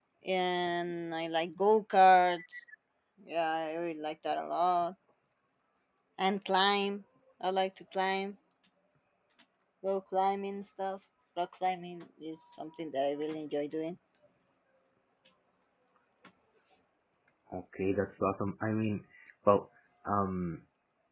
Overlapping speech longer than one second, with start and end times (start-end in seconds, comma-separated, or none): none